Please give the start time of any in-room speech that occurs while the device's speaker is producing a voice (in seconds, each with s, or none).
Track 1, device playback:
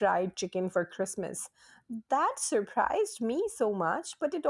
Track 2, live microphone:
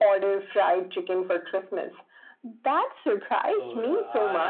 3.5 s